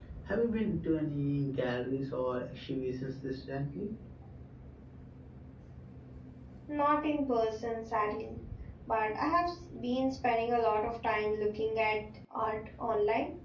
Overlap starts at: none

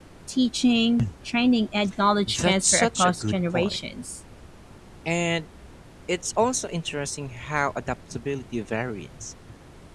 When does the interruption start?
2.3 s

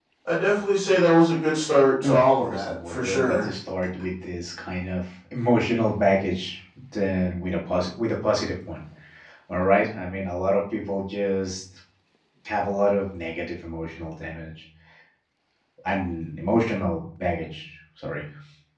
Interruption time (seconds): 2.0 s

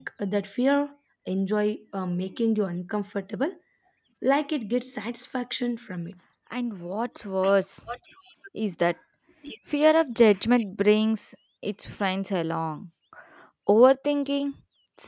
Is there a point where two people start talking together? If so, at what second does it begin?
none

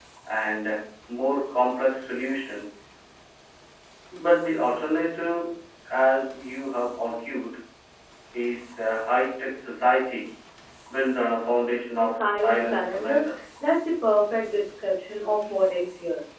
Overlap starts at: 12.0 s

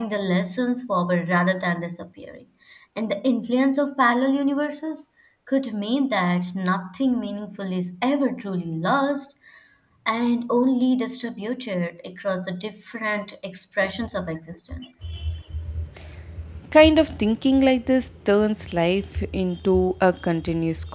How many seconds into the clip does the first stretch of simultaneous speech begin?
none

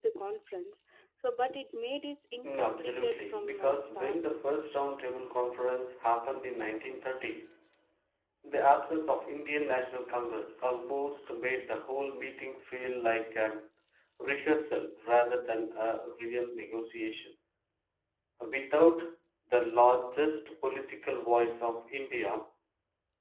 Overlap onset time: 2.4 s

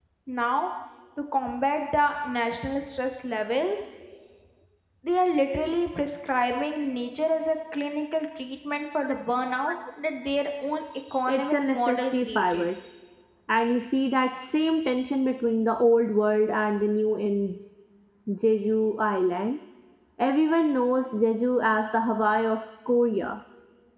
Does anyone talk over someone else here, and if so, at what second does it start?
11.3 s

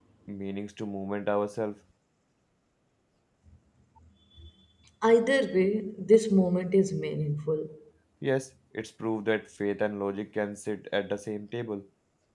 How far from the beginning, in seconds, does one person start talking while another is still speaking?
none

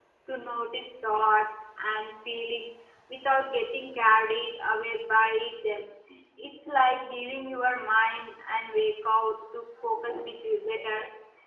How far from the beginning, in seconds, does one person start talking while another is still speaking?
none

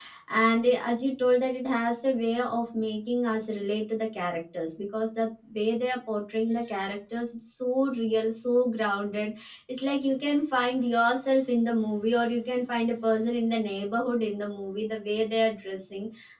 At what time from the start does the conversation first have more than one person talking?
none

